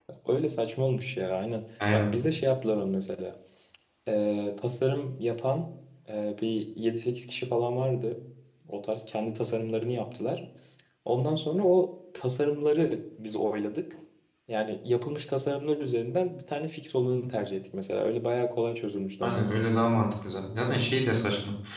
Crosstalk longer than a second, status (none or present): none